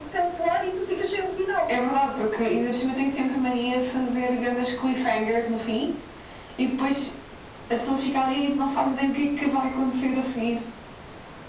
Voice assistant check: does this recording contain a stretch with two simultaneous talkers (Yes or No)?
No